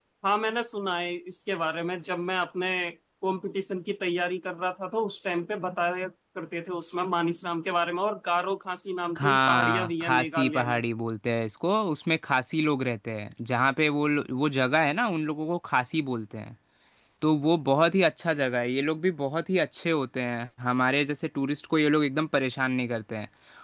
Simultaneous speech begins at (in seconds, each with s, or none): 9.2 s